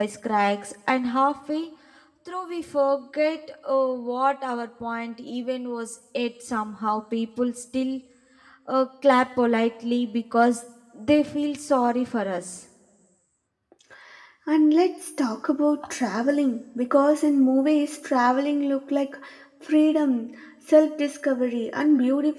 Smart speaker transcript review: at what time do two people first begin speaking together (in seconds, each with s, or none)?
none